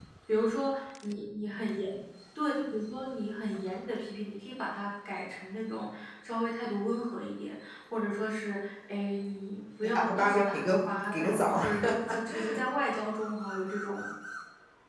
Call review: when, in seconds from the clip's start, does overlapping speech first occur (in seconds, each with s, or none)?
9.8 s